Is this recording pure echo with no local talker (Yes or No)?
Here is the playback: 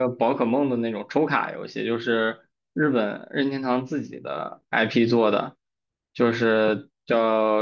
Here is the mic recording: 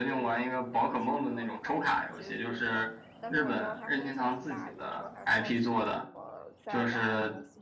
No